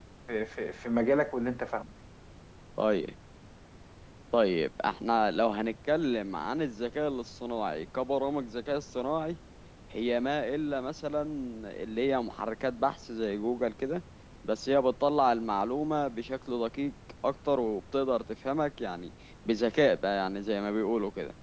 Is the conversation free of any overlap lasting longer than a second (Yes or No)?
Yes